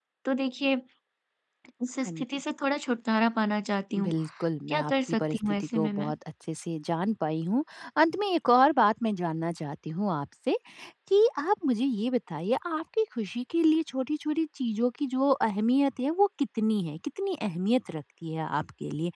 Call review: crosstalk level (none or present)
present